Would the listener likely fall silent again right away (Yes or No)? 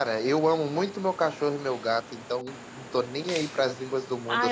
No